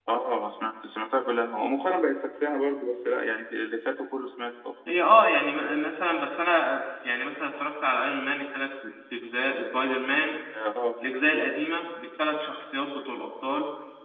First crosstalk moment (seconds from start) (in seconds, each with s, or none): none